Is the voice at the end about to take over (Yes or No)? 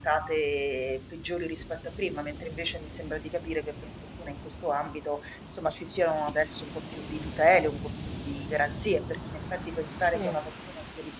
No